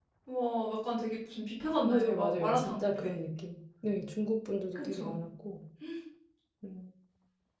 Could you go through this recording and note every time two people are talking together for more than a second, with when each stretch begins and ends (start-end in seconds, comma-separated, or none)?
1.8-3.2